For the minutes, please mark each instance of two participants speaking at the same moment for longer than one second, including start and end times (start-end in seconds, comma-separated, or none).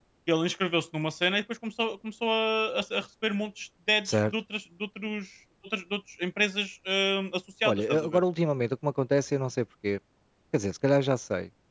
none